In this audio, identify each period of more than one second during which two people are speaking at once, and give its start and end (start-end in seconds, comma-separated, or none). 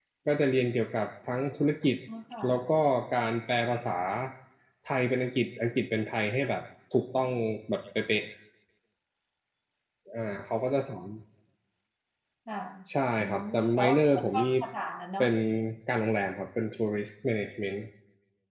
13.2-14.5